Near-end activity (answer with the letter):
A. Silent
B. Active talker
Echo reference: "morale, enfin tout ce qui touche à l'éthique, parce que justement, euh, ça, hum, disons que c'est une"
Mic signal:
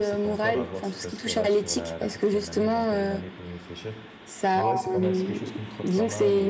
B